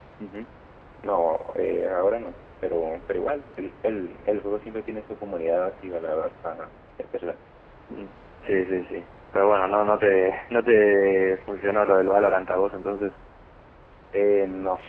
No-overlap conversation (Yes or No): Yes